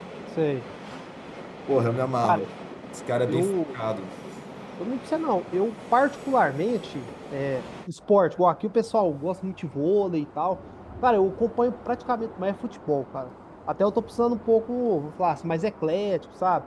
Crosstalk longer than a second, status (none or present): none